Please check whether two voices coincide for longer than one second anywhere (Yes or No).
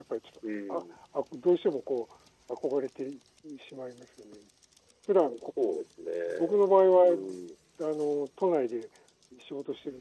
No